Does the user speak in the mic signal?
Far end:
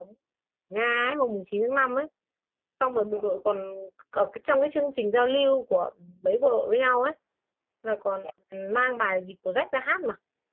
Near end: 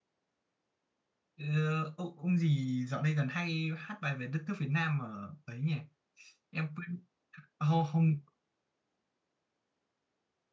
Yes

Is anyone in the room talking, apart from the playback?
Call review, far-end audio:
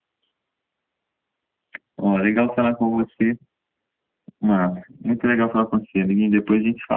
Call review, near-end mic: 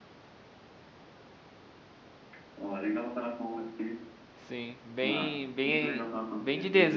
Yes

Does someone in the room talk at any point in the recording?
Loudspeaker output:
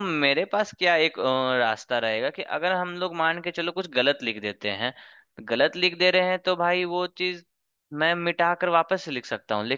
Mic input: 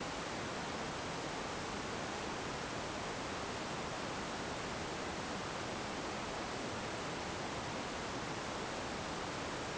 No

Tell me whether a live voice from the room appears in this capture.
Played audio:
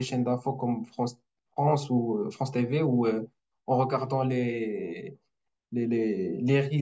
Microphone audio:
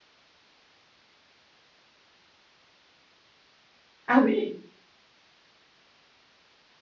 Yes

